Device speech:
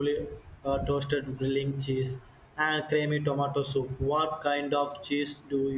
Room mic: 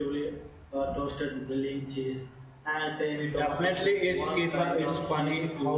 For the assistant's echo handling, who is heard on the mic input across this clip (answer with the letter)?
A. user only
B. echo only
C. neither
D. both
D